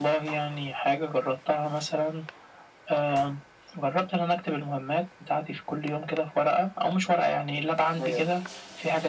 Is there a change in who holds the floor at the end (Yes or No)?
No